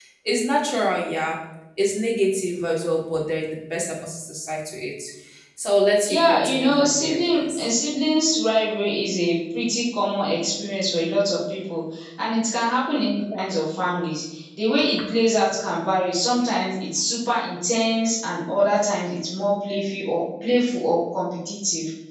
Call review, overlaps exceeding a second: present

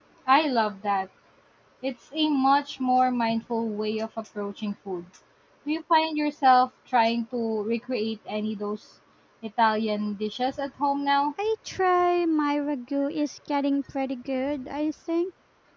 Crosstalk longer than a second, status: none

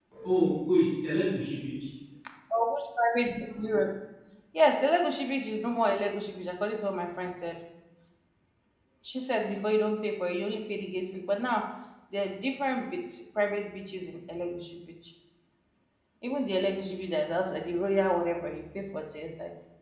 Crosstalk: none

